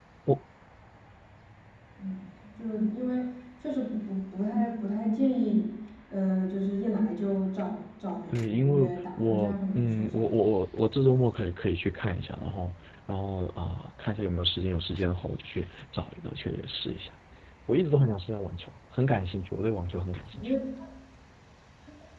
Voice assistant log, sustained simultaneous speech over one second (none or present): present